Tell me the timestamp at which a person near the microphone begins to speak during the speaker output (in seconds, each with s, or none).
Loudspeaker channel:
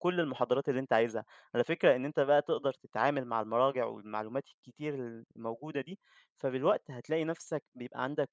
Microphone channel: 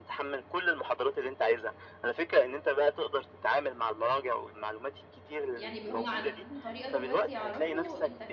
5.5 s